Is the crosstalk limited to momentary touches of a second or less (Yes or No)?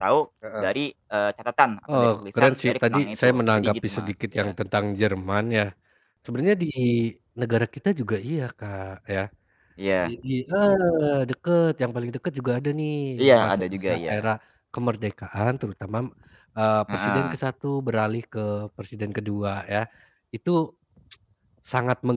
No